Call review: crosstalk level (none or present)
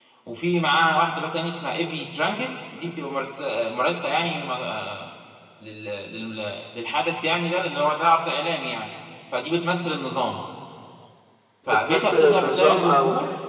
present